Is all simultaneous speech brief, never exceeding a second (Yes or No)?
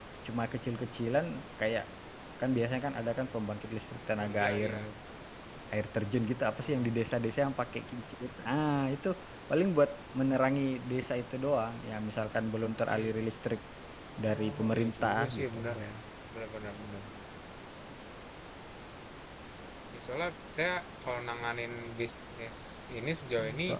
No